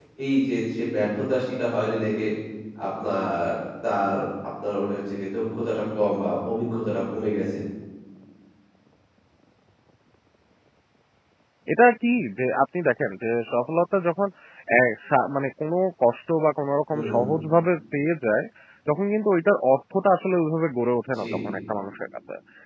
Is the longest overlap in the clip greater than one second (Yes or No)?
No